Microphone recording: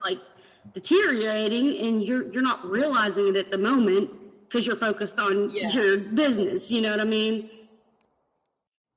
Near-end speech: present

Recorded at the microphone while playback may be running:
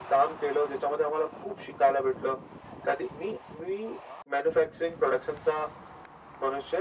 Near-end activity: none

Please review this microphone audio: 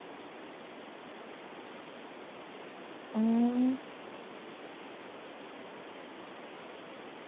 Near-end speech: present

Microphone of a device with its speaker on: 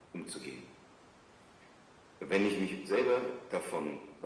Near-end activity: none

